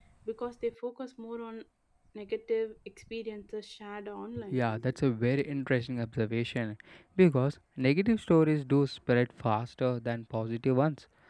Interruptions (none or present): none